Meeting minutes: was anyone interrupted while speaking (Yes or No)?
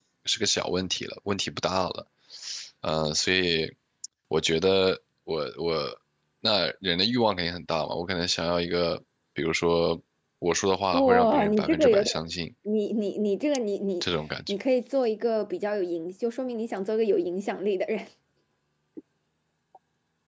Yes